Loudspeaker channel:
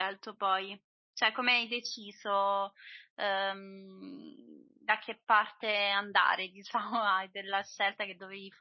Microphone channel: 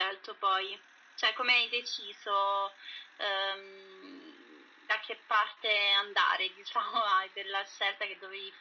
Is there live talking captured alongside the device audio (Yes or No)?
No